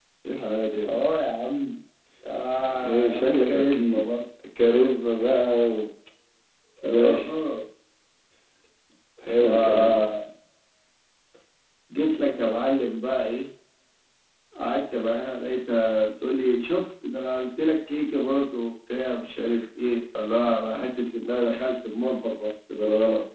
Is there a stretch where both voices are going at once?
Yes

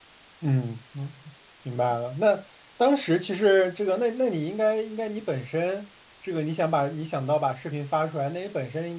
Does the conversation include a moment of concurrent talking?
No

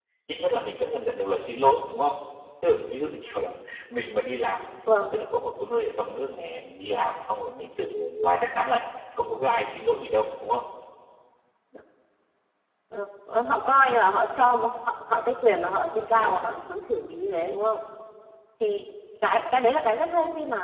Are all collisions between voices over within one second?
Yes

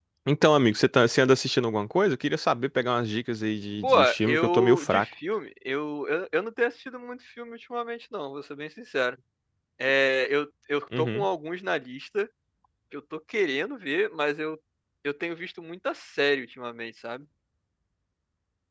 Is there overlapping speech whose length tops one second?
Yes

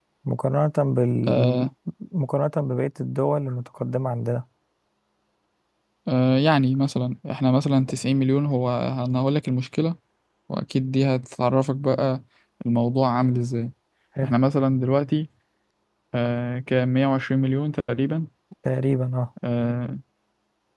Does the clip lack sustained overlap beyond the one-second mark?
Yes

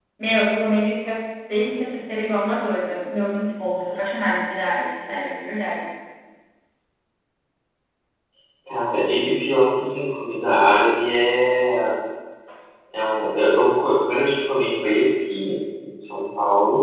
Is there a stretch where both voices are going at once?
No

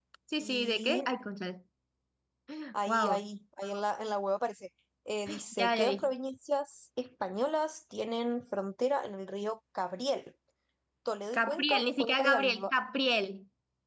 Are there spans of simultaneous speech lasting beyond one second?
Yes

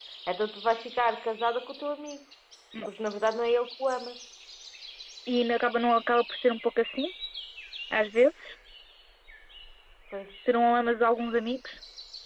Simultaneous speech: No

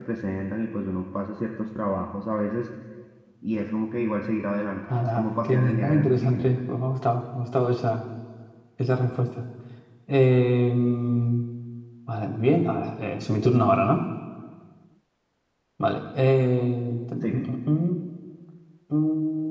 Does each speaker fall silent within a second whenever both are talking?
No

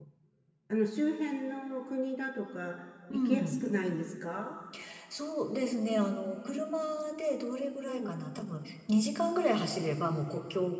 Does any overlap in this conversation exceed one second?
No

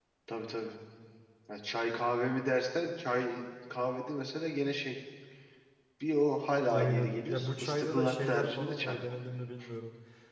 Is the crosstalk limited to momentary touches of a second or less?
No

